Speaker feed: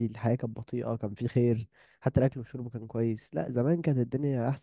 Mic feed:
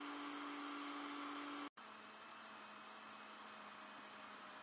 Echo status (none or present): none